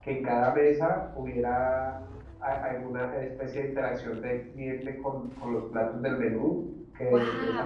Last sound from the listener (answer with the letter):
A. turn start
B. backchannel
B